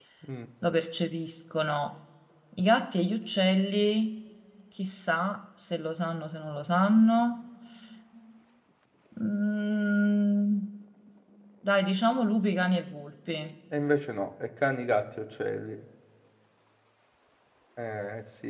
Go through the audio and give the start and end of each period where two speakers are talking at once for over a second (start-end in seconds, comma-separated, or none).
none